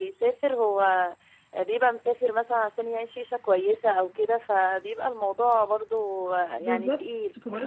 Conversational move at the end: taking over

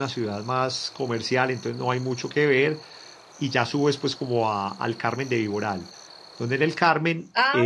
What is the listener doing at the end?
taking over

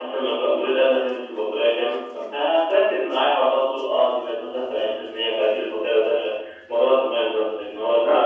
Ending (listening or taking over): taking over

